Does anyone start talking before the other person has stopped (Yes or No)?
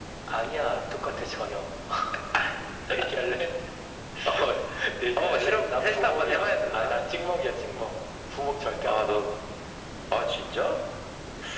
Yes